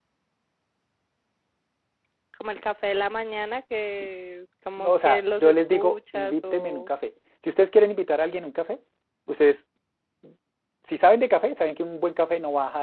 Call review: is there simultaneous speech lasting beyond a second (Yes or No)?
Yes